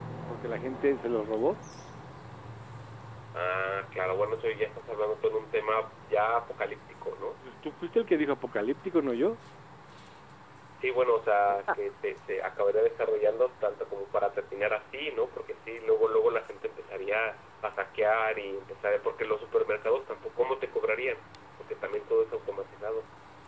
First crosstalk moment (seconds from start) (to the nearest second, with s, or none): none